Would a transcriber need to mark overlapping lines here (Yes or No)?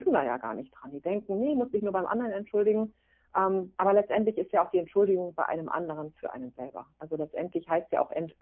No